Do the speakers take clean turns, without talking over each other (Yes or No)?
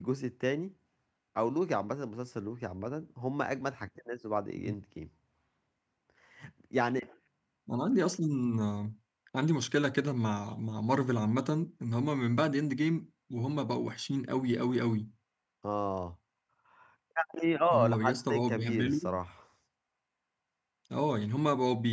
No